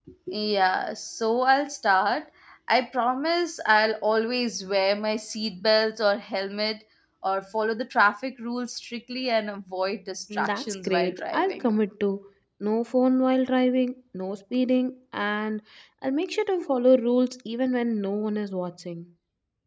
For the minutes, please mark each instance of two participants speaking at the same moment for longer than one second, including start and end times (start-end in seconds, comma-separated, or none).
10.3-11.7